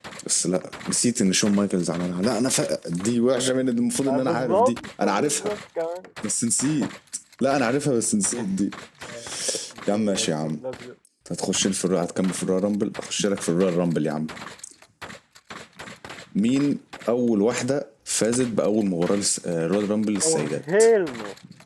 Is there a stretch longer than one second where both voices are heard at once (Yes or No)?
Yes